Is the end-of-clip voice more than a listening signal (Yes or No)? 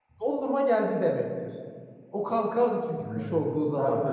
Yes